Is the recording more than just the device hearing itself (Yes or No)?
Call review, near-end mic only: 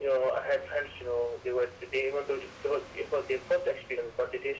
No